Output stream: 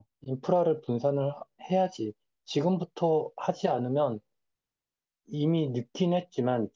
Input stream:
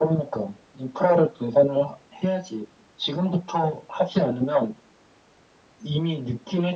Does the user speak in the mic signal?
No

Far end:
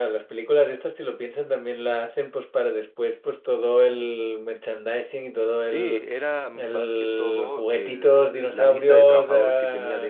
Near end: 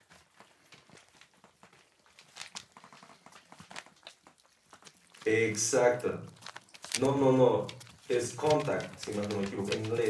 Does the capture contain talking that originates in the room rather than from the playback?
Yes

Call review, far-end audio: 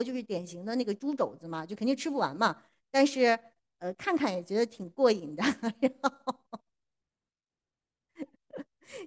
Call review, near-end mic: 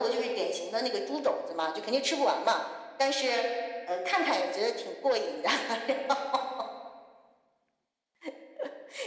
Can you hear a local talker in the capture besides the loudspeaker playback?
No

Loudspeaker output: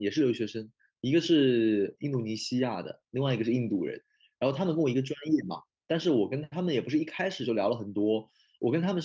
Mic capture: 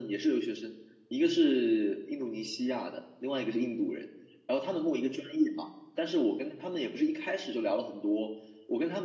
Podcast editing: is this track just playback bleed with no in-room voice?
Yes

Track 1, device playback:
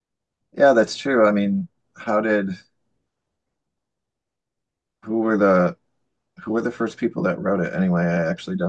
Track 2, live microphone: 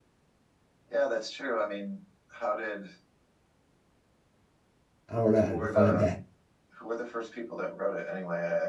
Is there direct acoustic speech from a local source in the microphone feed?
Yes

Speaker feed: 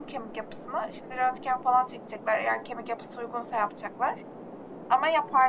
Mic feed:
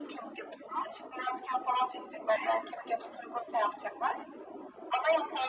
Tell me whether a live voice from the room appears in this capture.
No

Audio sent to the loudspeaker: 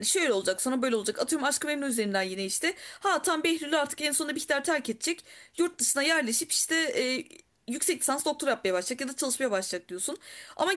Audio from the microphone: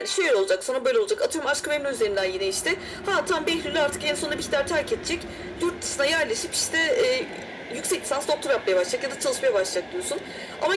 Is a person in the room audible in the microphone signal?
No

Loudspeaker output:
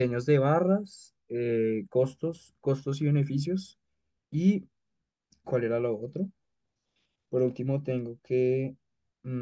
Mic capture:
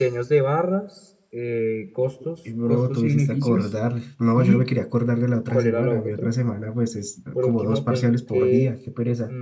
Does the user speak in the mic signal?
Yes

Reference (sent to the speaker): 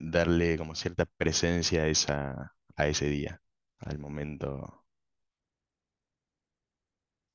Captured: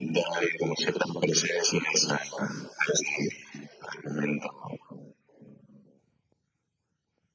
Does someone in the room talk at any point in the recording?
No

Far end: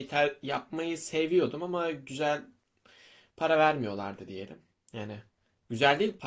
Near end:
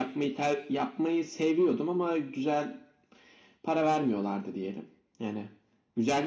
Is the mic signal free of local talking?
Yes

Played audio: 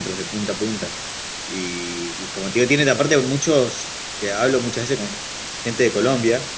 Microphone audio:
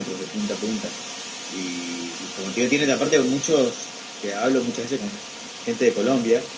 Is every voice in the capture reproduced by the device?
Yes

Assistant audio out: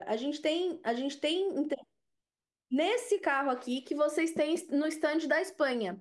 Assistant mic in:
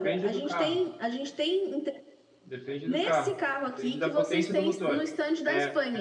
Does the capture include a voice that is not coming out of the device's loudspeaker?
Yes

